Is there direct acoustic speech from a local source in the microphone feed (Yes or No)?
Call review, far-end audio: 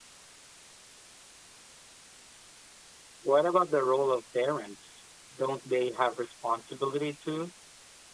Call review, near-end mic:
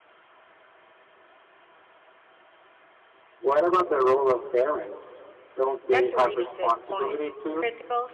Yes